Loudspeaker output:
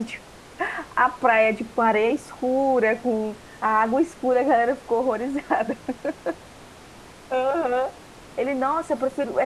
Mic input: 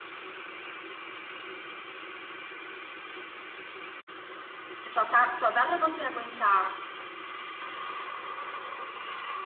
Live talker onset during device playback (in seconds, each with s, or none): 4.9 s